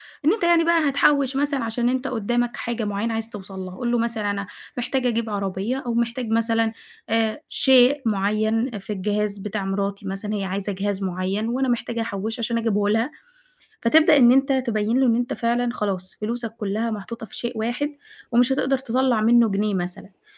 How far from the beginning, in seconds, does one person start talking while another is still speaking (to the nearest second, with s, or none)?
none